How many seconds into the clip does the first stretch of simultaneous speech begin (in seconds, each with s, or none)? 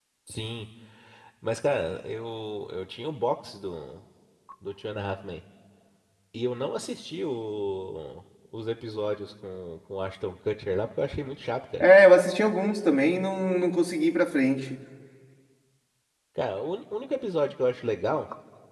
none